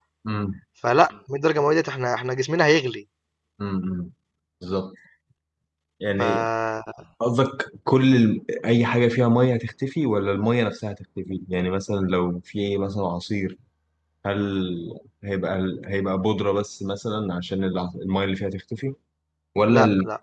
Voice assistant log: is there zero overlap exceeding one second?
Yes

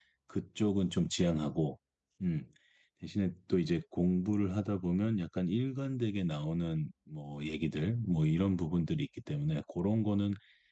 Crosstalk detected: No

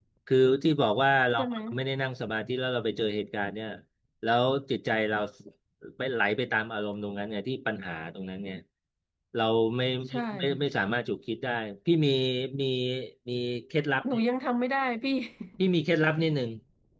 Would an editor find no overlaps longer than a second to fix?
Yes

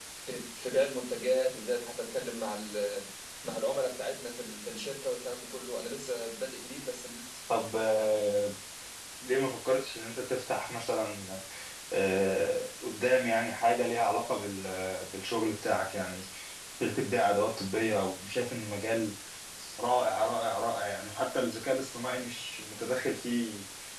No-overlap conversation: Yes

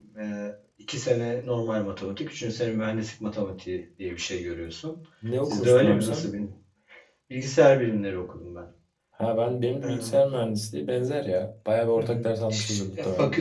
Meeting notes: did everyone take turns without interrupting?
No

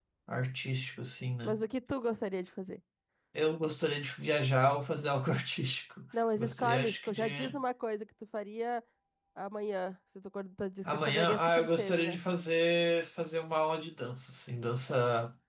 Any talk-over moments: Yes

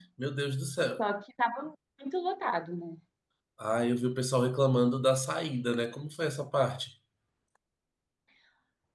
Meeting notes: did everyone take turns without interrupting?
Yes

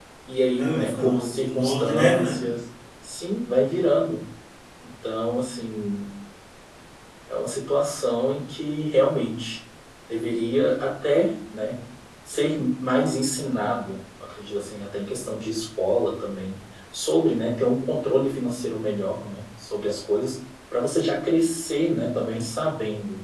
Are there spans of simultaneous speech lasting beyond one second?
Yes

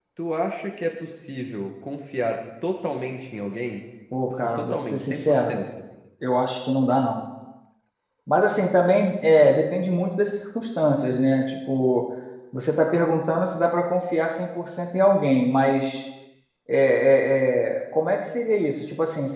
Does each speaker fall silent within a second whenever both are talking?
No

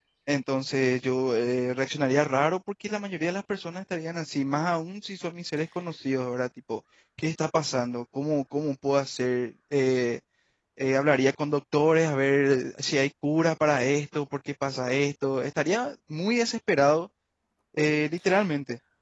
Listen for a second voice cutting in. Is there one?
No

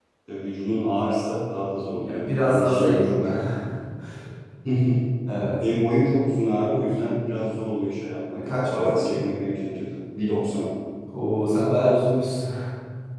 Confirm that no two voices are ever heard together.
No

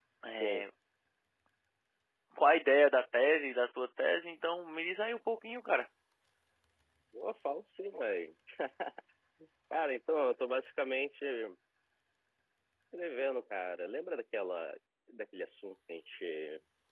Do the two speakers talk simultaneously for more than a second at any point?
No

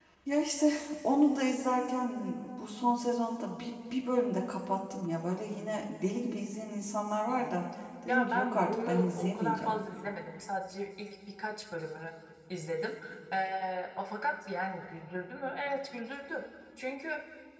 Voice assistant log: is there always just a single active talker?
No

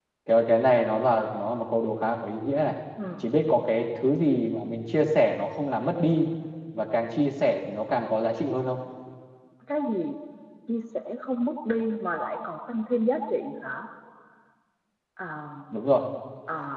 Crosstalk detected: No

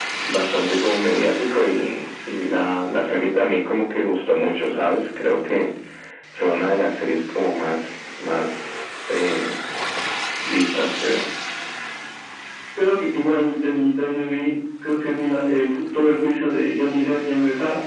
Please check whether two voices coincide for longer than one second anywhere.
No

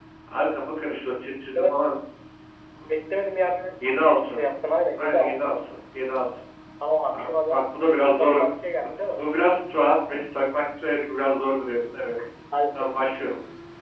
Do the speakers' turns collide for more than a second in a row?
No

